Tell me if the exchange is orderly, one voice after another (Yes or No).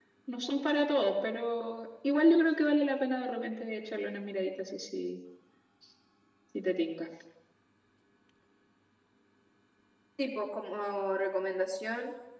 Yes